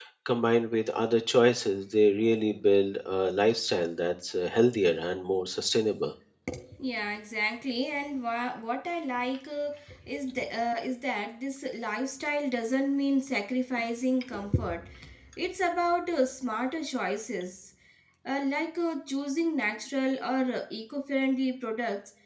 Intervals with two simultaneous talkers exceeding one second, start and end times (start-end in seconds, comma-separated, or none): none